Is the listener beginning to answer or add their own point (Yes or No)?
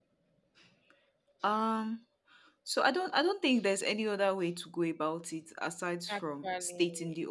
No